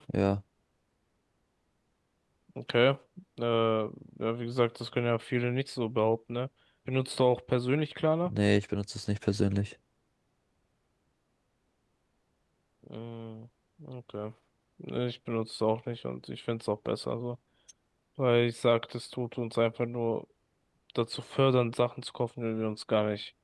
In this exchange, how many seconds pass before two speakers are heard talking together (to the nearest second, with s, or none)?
none